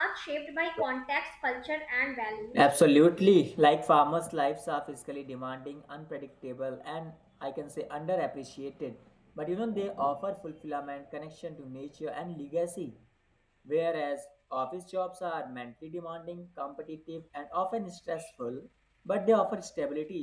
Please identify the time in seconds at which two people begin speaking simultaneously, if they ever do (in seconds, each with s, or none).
none